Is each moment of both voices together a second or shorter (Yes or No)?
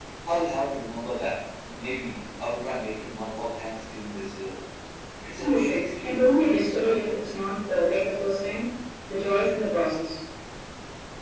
No